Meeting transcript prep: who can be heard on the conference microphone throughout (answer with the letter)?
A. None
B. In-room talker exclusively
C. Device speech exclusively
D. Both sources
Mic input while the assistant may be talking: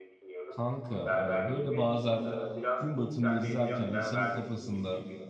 D